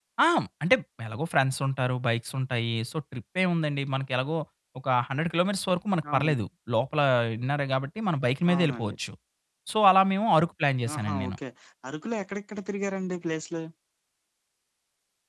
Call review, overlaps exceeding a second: none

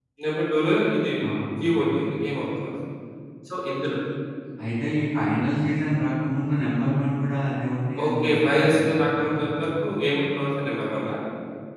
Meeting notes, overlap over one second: present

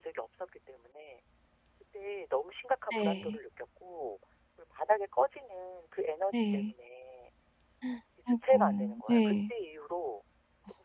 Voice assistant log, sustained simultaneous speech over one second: present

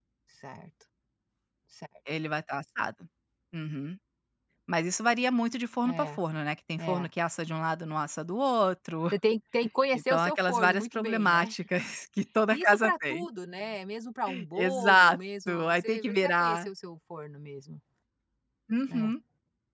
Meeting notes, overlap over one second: present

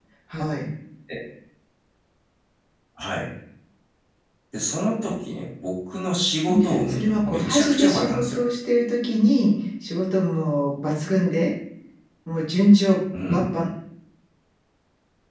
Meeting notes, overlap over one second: present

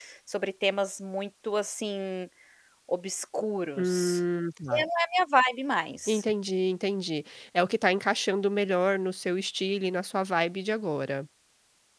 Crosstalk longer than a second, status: none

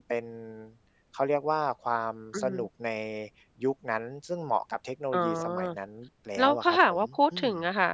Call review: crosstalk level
present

